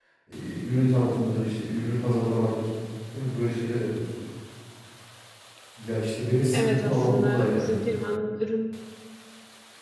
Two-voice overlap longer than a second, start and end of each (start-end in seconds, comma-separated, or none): 6.5-7.8